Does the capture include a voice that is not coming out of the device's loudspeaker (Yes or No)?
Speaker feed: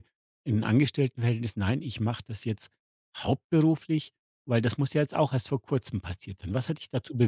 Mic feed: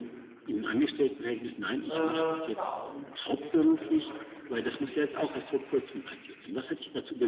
Yes